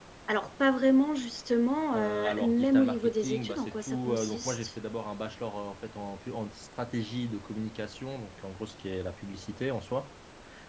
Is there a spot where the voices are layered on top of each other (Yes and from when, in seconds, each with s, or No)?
Yes, from 1.9 s